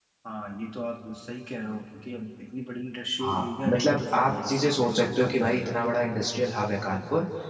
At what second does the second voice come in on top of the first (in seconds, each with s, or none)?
3.2 s